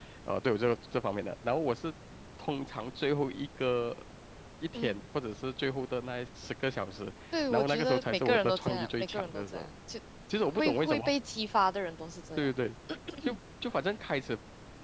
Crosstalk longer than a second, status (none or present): present